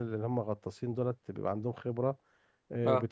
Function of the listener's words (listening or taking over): listening